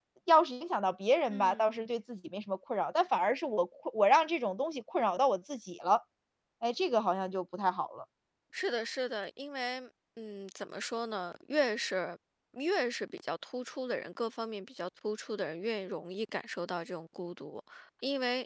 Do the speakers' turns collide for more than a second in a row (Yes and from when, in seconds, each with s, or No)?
No